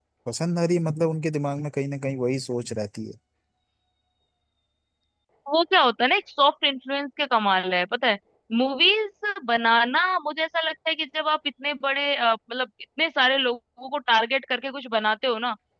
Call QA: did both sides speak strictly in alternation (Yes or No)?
Yes